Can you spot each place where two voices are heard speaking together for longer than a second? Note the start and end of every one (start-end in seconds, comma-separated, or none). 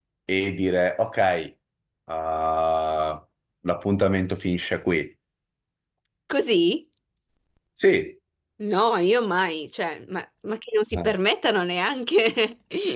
none